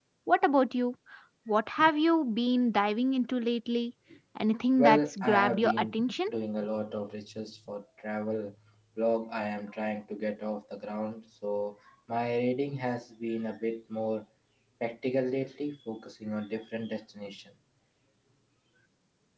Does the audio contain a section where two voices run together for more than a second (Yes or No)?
Yes